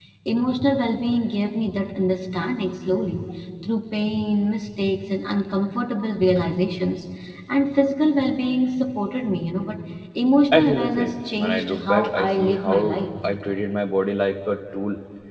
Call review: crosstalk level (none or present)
present